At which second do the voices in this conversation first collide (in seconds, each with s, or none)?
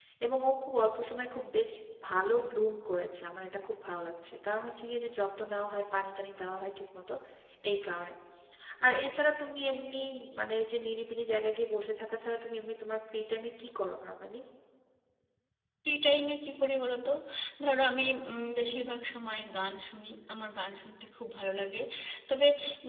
none